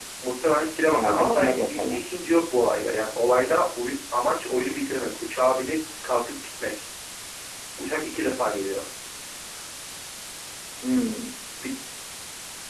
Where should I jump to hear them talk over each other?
0.9 s

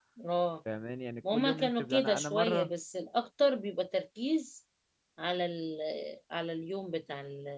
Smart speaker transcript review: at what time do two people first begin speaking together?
1.3 s

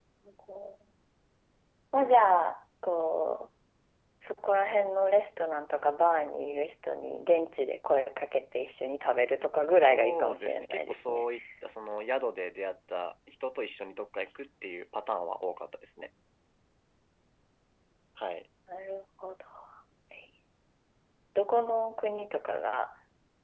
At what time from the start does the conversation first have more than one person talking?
9.8 s

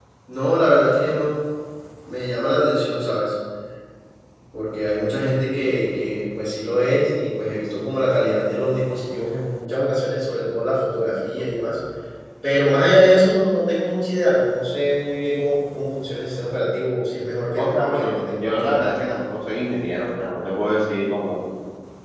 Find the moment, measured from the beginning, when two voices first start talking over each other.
17.6 s

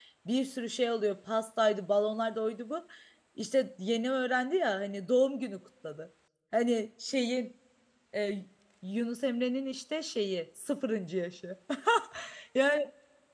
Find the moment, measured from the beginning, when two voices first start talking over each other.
none

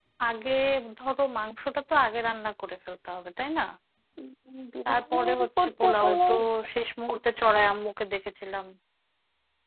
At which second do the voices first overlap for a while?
4.8 s

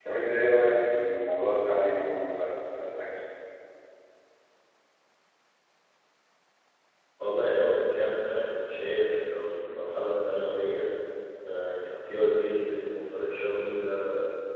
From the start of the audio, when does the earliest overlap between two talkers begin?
none

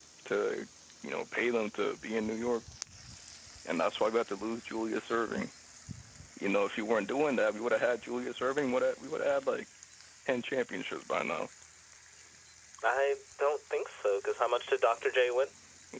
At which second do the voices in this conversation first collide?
none

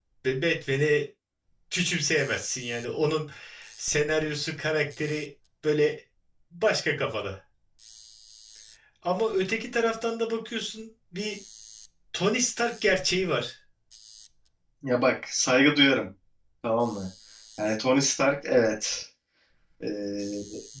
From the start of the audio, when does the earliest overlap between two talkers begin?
none

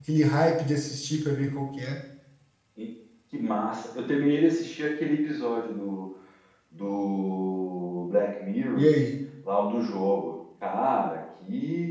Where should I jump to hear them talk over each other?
none

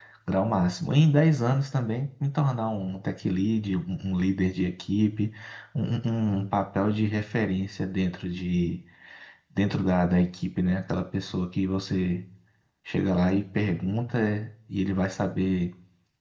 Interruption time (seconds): none

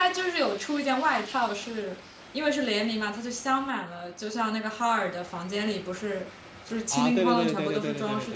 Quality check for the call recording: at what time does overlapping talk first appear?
6.9 s

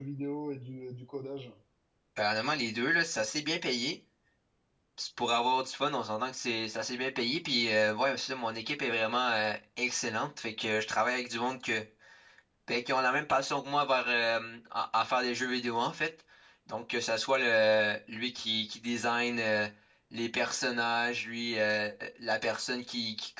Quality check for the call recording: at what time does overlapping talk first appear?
none

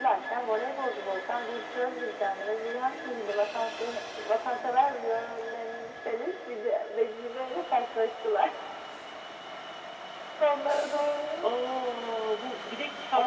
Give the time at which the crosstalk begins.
none

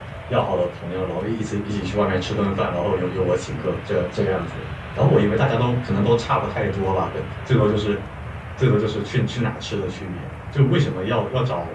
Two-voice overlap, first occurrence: none

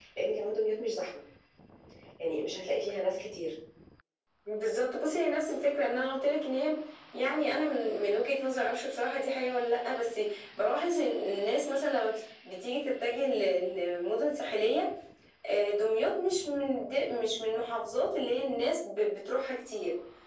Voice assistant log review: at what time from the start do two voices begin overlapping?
none

